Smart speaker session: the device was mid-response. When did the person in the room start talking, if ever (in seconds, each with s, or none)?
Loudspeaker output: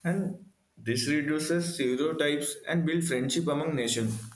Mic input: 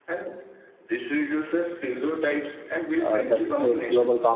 3.0 s